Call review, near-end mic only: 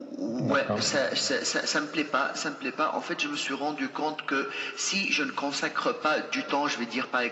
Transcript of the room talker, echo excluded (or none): d'accord.